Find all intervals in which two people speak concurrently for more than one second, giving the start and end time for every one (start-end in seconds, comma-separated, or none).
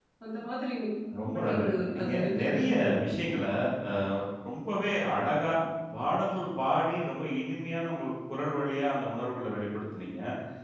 1.4-2.7